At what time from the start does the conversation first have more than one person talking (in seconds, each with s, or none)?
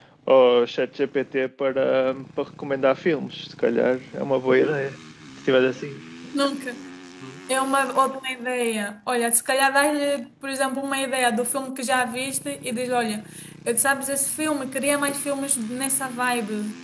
none